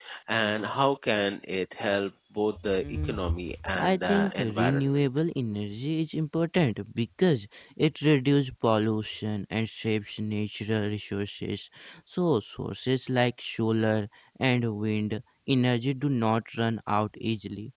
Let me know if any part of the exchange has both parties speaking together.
Yes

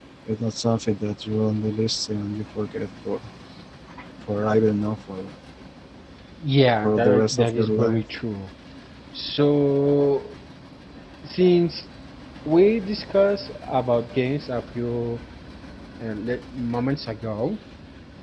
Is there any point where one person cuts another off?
Yes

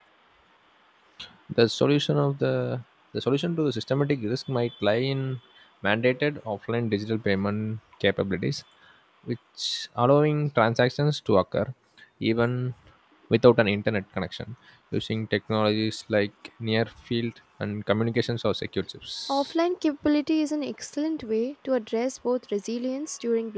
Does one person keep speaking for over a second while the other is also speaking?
No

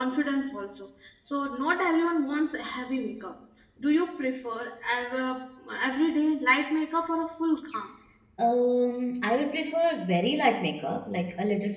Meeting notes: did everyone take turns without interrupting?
Yes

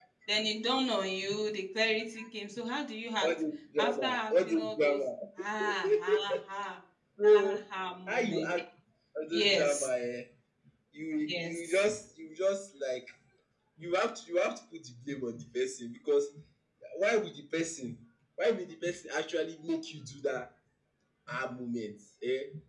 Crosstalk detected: Yes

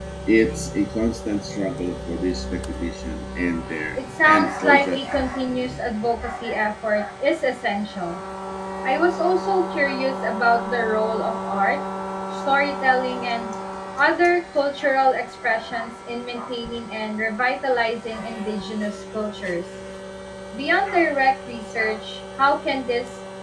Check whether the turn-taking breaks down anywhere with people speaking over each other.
Yes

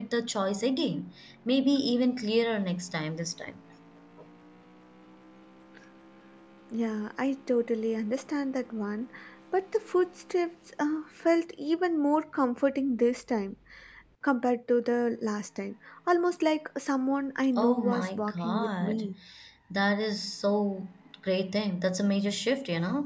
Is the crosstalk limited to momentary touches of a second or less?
No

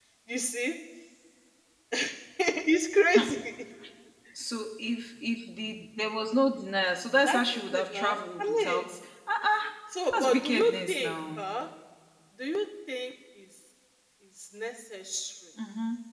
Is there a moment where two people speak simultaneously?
Yes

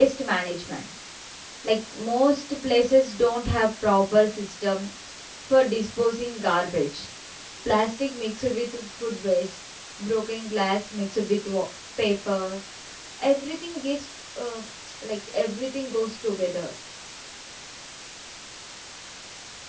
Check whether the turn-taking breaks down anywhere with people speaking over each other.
No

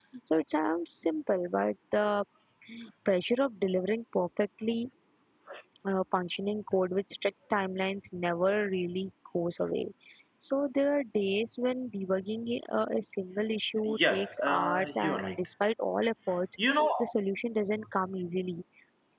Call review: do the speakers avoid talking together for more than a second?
No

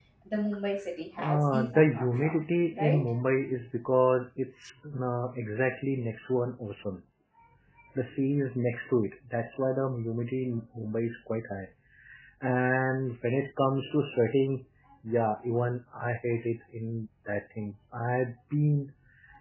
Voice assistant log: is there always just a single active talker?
No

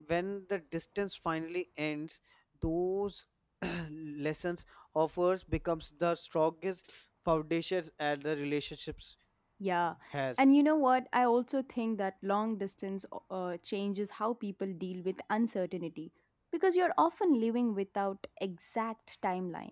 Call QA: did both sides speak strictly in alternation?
Yes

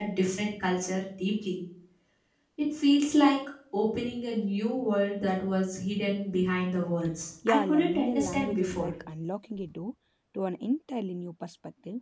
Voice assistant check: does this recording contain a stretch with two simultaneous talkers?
Yes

